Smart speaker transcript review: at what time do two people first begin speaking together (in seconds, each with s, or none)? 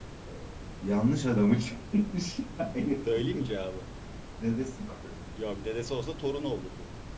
none